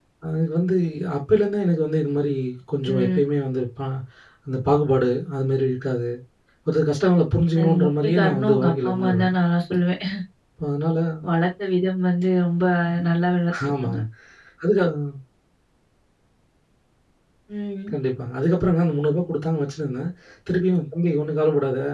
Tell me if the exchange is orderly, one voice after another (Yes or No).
No